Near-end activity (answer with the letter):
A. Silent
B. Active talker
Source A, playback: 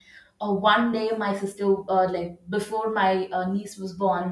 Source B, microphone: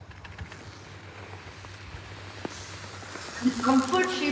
B